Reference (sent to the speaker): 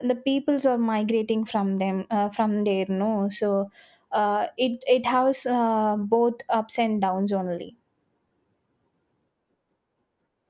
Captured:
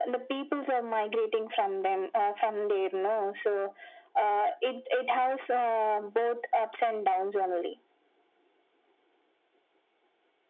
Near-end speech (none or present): none